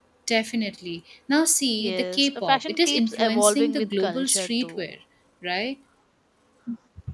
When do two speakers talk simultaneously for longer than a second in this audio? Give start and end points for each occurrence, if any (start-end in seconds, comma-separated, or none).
1.8-4.8